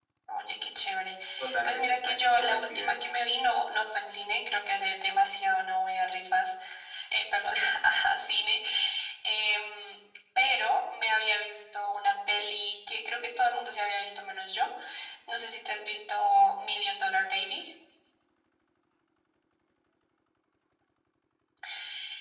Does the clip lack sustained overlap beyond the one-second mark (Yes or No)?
No